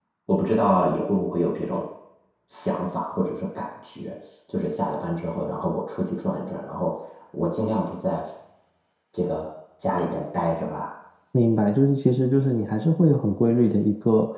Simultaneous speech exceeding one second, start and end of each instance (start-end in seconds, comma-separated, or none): none